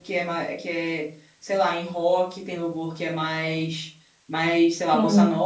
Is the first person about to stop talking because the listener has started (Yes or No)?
No